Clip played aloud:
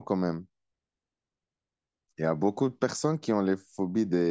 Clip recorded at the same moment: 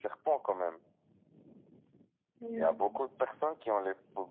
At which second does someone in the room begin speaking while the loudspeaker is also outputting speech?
2.4 s

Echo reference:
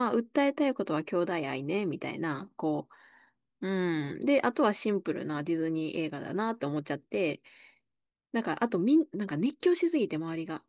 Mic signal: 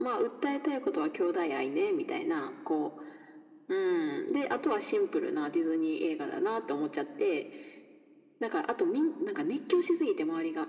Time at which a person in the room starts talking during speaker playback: none

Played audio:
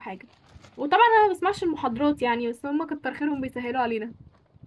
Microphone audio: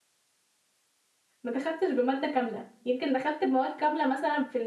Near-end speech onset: 1.4 s

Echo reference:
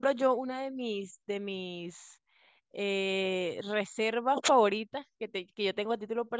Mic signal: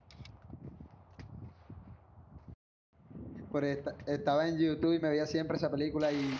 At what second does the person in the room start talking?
3.5 s

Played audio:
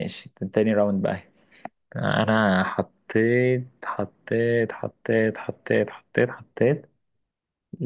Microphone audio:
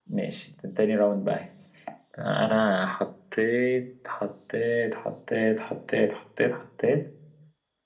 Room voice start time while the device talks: none

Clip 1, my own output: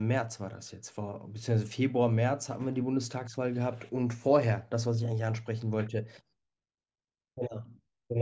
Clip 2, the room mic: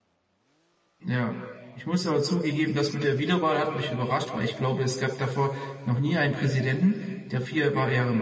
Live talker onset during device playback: 1.0 s

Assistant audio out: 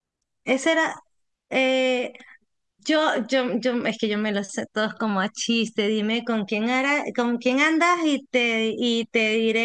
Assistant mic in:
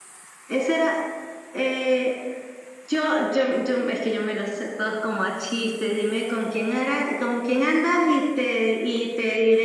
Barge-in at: none

